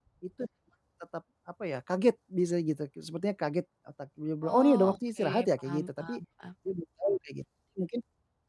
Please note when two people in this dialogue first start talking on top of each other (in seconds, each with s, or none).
4.4 s